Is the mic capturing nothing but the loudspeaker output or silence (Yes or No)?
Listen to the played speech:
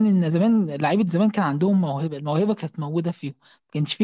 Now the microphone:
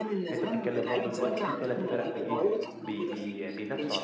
No